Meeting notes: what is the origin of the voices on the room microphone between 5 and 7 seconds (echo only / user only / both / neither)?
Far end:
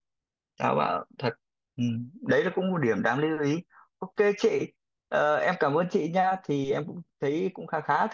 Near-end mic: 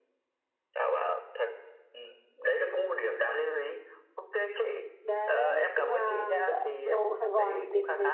both